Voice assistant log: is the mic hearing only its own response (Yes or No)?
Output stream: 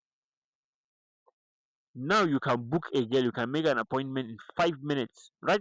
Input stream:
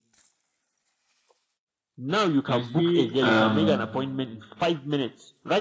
No